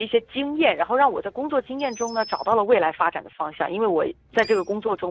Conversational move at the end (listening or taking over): listening